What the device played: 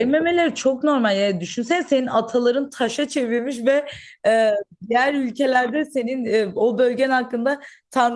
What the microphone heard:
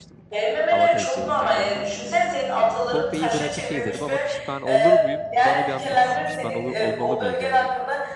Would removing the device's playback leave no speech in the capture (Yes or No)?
No